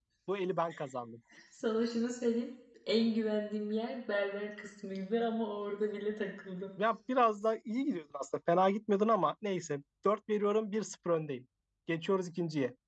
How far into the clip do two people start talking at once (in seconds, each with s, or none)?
none